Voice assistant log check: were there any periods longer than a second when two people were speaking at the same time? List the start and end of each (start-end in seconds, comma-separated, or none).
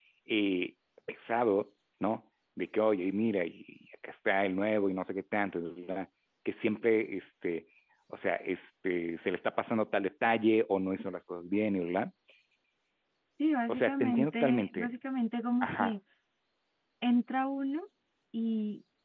13.7-14.9